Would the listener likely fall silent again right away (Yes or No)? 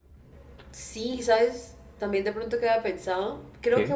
Yes